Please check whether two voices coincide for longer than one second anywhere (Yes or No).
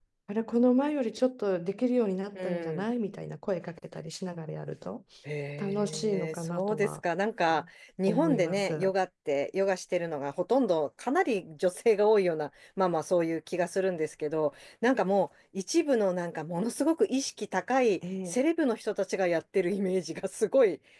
Yes